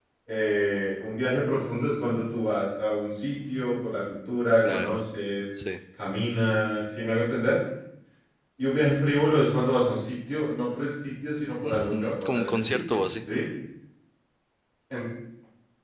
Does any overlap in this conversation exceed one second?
Yes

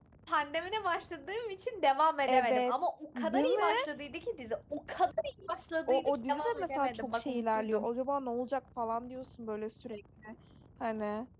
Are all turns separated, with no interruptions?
No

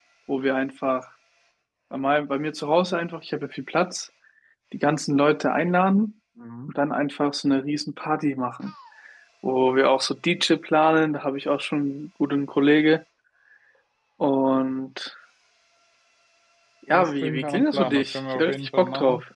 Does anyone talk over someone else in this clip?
Yes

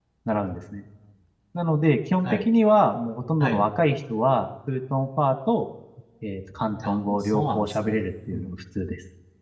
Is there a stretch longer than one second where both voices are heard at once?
Yes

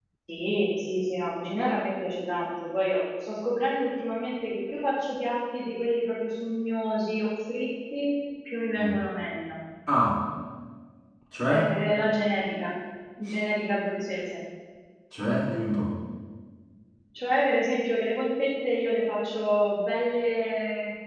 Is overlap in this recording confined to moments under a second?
Yes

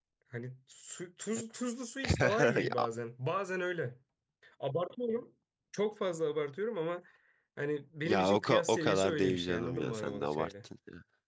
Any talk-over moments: Yes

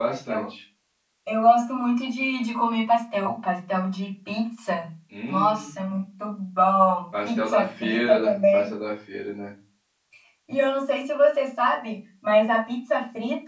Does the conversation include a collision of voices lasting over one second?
Yes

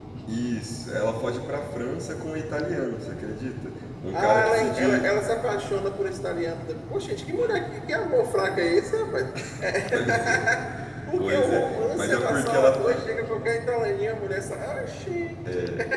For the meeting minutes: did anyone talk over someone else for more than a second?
Yes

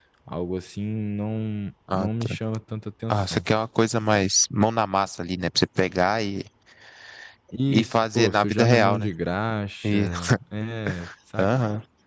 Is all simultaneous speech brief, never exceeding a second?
No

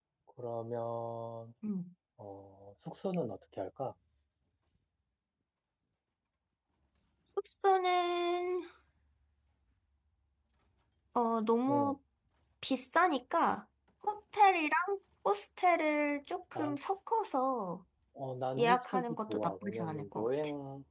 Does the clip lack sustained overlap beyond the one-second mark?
No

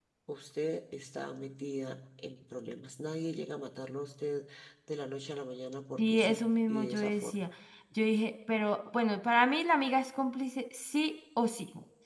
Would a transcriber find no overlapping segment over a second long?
No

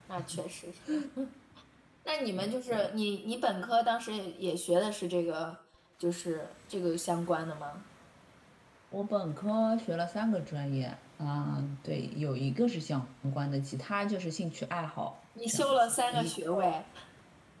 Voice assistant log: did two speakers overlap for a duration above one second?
Yes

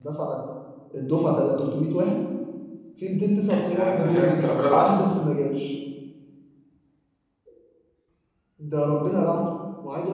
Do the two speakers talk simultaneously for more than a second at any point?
Yes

